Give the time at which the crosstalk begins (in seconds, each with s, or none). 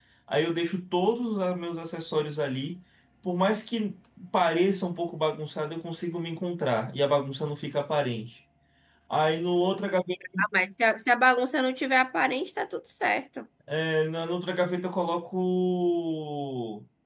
none